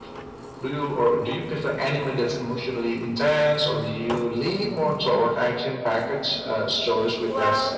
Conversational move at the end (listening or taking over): taking over